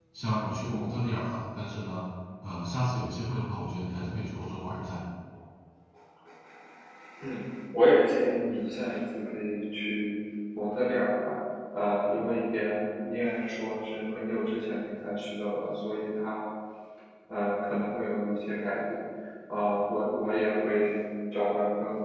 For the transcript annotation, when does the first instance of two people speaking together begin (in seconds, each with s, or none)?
none